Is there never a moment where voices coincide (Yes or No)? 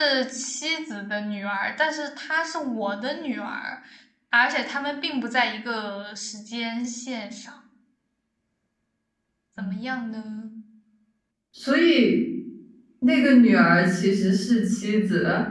Yes